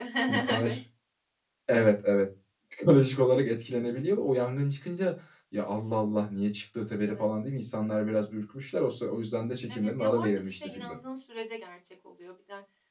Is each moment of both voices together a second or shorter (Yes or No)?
No